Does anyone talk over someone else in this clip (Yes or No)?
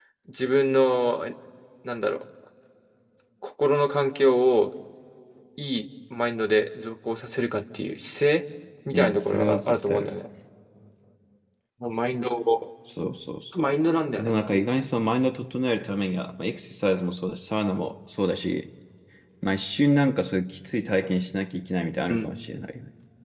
Yes